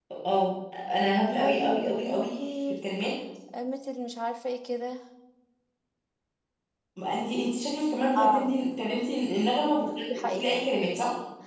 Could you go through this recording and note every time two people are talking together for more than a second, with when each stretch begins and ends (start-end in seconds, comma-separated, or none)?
1.4-2.6